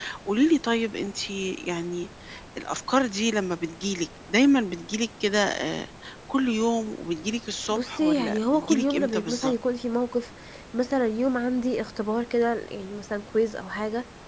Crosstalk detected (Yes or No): Yes